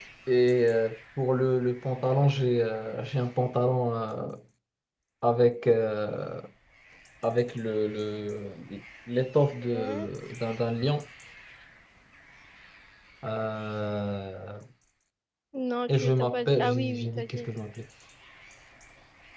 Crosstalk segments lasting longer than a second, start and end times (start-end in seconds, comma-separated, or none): 15.9-17.5